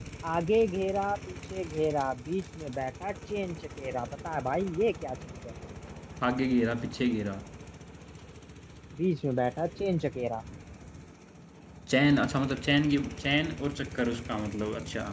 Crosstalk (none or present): none